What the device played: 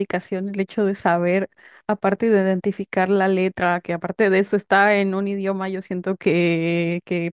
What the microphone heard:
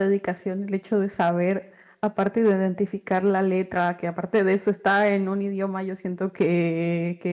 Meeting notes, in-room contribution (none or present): none